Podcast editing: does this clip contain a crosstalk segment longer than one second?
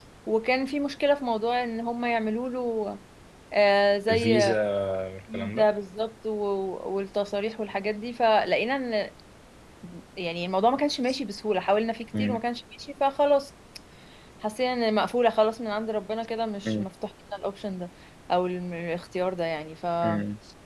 No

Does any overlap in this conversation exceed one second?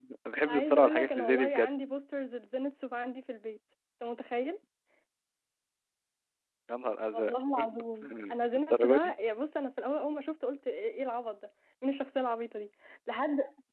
Yes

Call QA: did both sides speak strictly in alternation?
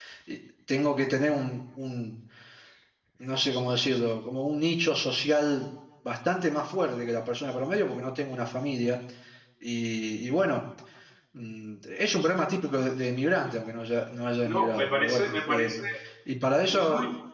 No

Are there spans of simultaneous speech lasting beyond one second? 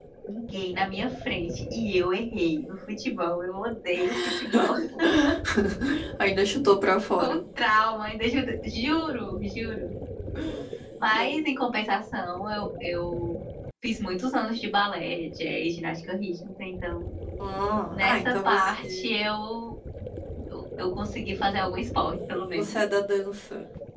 Yes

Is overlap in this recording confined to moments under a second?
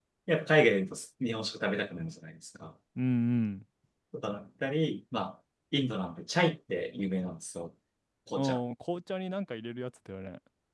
Yes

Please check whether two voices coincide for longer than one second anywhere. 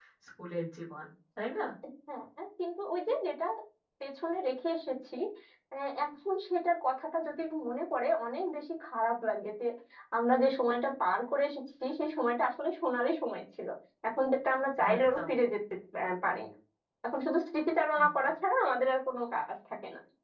No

